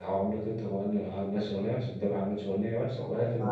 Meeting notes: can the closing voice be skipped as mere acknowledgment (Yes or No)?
No